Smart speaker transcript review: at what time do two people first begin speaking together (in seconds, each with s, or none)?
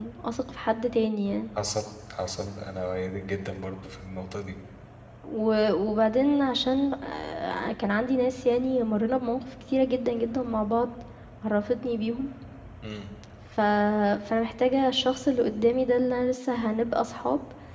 none